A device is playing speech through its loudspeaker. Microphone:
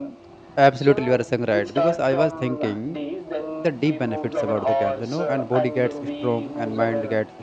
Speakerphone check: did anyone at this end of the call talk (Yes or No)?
Yes